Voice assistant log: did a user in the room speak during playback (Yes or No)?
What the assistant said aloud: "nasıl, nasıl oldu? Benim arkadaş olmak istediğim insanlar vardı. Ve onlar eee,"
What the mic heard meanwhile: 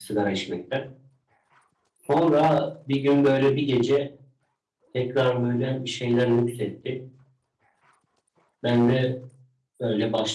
Yes